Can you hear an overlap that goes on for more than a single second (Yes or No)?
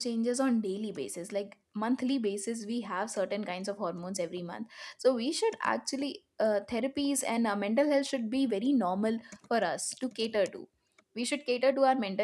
No